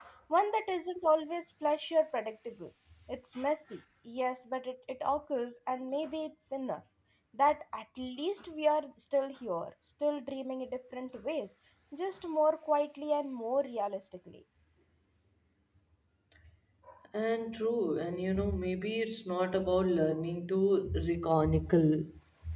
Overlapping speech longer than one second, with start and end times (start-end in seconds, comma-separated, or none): none